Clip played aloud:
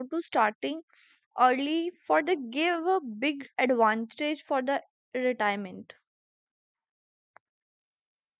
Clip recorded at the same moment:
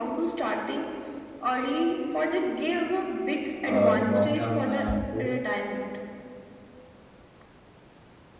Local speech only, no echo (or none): uh, the long term uh, growth